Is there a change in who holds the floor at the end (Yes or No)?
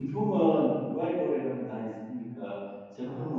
No